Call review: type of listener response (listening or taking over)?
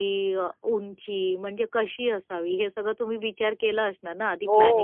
taking over